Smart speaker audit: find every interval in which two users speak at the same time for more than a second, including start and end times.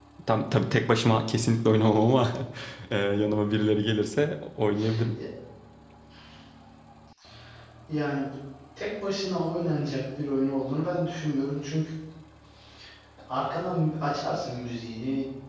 none

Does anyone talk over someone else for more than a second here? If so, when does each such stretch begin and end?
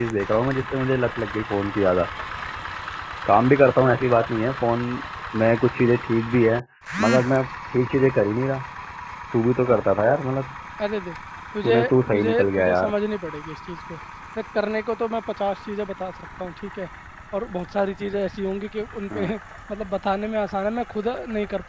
11.6-12.9

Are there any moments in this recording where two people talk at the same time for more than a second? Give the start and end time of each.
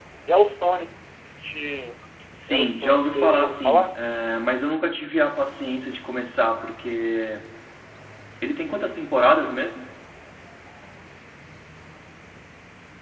2.5-4.0

